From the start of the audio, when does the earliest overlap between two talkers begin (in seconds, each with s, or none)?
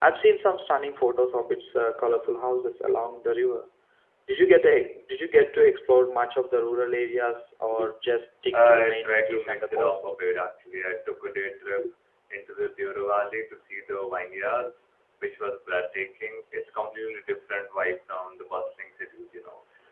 8.5 s